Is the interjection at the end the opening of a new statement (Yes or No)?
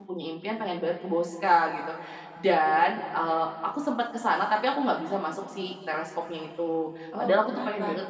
No